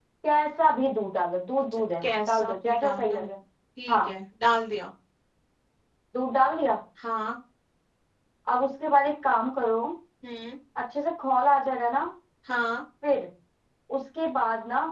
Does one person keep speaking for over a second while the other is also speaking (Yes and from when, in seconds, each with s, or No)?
Yes, from 1.7 s